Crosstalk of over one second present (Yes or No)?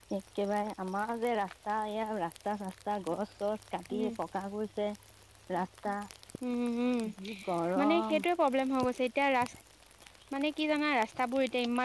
No